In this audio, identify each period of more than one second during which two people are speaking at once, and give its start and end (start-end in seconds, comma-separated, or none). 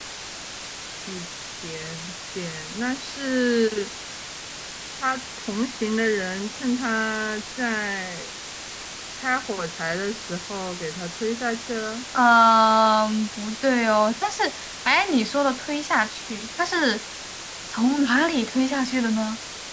none